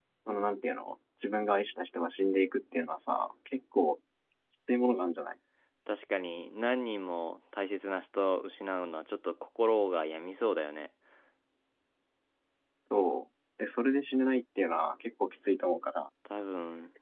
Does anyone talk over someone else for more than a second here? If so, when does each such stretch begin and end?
none

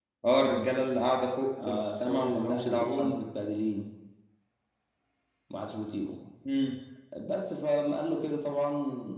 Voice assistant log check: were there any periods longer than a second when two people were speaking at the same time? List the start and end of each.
1.7-3.1

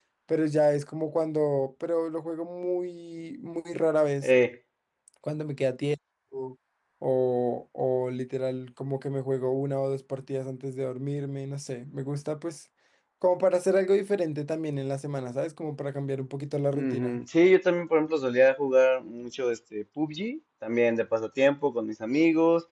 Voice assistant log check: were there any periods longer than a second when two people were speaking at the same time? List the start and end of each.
none

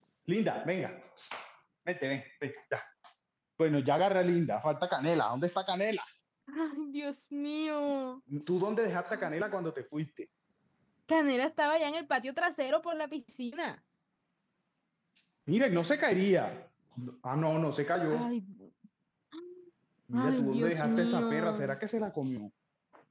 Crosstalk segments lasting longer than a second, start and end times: 20.1-21.8

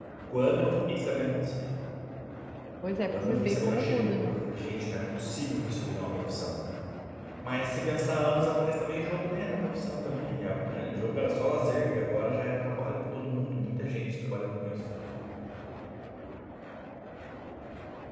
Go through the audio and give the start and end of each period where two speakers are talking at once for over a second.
3.1-4.4

